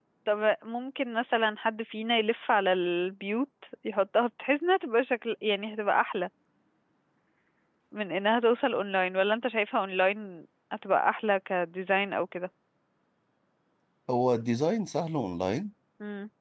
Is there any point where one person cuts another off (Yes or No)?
No